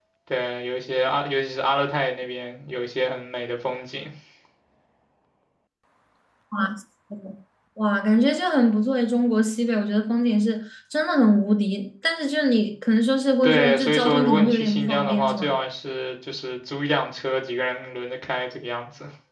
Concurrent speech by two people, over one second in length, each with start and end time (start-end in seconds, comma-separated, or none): 13.4-15.5